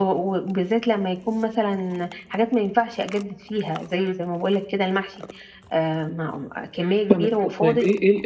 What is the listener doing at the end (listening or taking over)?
taking over